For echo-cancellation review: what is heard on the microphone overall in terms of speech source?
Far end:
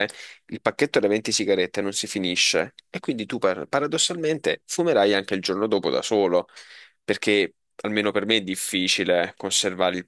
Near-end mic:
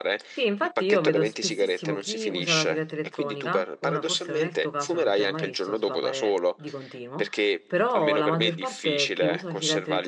both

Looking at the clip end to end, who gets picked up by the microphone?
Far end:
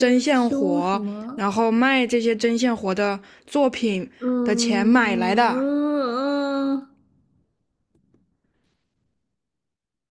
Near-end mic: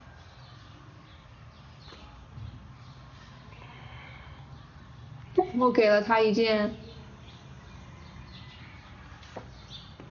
user only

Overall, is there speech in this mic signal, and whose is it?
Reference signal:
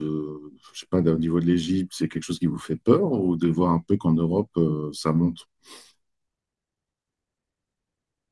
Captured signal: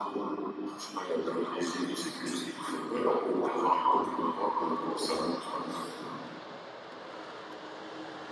echo only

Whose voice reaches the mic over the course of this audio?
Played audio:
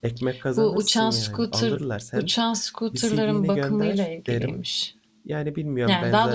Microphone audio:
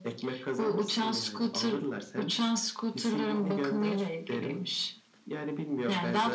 echo only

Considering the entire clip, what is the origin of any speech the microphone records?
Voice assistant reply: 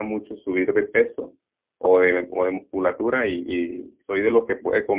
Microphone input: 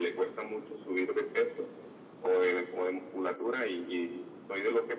echo only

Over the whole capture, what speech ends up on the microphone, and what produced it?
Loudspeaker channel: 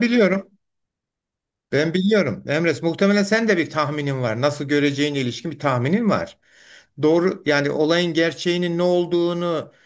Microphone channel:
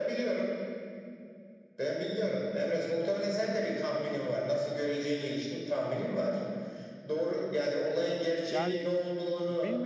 both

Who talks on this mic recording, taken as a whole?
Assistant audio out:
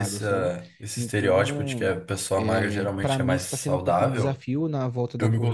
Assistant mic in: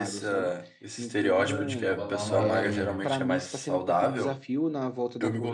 both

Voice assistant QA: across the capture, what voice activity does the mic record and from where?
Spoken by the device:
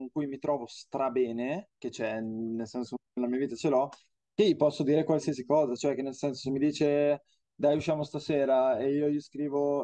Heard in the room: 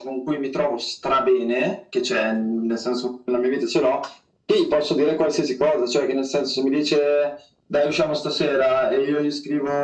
echo only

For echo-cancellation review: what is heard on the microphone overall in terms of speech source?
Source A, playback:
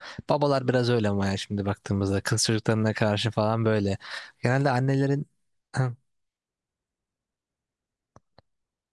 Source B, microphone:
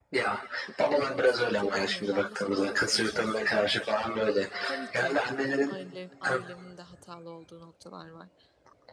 both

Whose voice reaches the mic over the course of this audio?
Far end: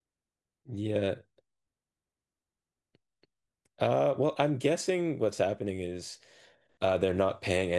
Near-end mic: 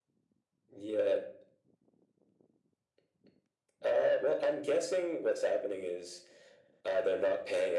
echo only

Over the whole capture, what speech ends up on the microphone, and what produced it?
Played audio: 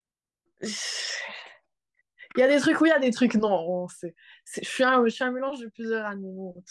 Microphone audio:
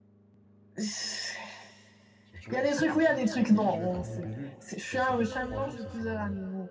both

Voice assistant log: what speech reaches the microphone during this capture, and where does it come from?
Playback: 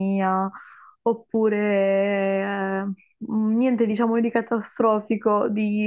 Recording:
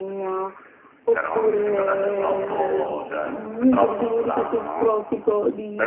both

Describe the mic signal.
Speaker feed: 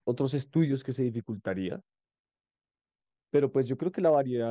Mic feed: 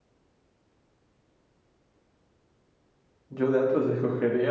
user only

